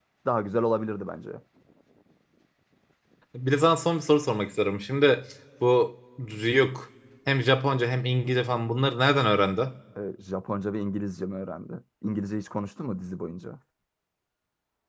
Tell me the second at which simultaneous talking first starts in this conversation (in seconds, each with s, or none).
none